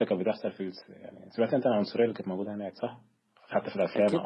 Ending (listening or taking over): taking over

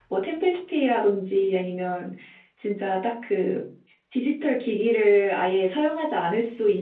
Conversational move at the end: listening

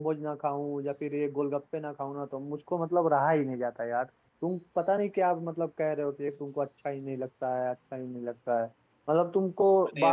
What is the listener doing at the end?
listening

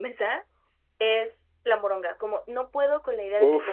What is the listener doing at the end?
listening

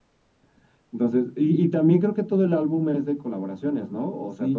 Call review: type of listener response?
taking over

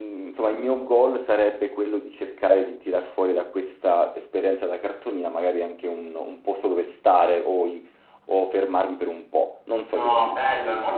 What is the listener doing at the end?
taking over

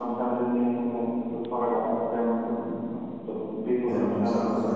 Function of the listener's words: taking over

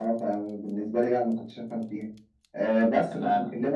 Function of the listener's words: listening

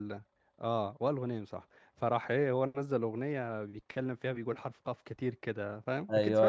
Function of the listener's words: taking over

